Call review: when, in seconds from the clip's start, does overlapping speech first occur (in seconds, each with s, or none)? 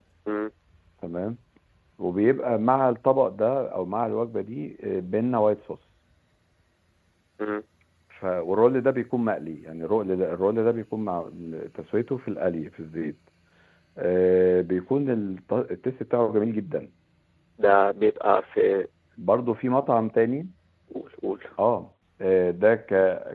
none